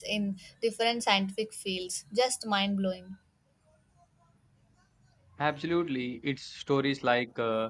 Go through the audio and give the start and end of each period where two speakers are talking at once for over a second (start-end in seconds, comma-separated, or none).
none